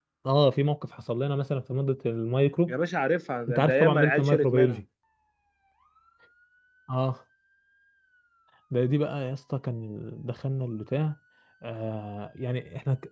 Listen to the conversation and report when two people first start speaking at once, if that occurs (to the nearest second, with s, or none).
3 s